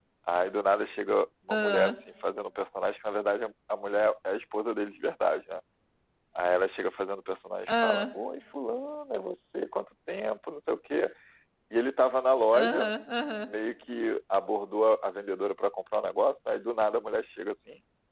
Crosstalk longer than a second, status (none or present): none